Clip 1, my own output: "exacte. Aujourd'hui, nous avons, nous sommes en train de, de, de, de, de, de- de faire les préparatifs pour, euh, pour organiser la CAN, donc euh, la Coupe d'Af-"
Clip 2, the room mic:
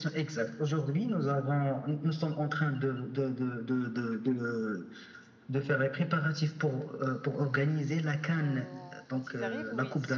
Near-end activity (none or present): present